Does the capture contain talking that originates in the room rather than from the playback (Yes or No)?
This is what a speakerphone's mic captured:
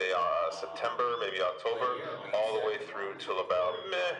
Yes